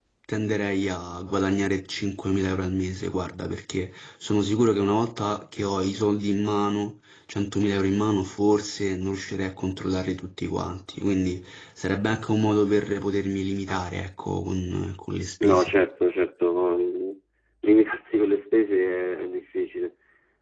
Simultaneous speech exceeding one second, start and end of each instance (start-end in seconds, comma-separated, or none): none